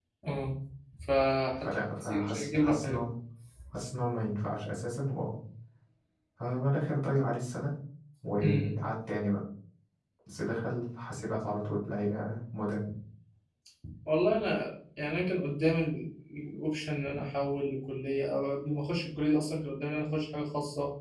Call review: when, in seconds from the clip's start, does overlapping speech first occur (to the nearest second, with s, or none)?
2 s